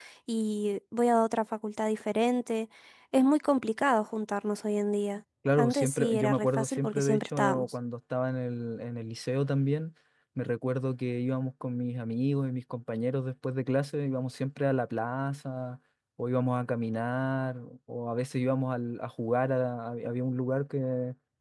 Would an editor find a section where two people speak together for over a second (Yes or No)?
Yes